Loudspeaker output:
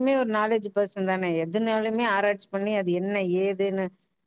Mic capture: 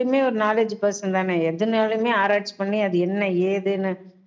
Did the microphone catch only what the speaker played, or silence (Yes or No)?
Yes